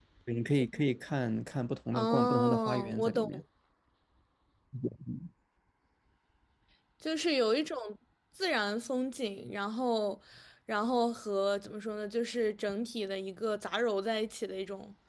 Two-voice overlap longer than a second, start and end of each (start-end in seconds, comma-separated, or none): 1.9-3.4